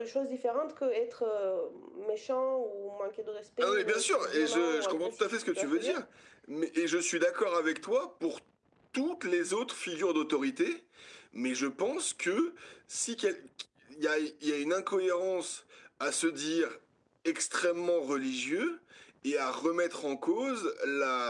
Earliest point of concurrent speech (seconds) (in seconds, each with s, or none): 3.6 s